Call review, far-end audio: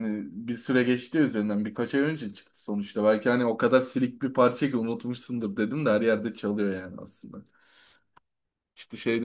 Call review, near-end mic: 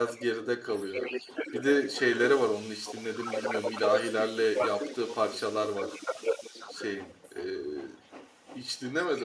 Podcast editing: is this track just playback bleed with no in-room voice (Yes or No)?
No